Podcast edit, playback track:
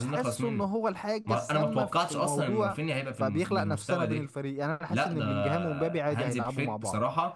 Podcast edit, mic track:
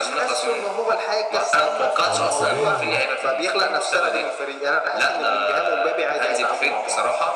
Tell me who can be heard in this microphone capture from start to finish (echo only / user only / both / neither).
both